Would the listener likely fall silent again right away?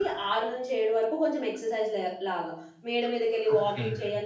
Yes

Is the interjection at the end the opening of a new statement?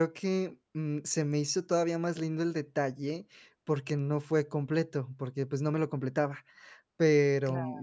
No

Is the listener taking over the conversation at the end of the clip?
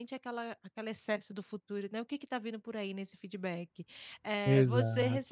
No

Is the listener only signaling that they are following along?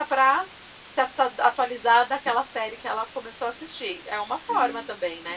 No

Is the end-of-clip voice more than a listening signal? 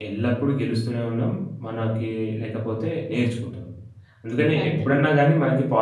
No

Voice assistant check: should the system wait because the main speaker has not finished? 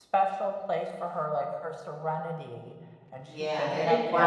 No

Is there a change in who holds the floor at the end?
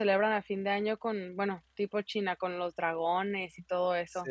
Yes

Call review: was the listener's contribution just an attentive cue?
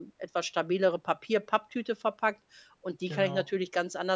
Yes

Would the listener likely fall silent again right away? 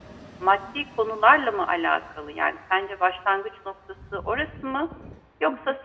Yes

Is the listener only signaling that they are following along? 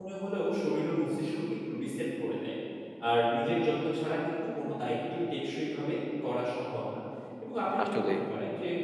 Yes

